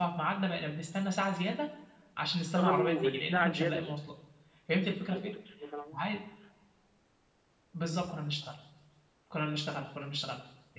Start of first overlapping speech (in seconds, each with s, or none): 2.6 s